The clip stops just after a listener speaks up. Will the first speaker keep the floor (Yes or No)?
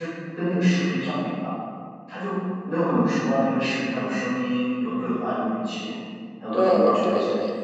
No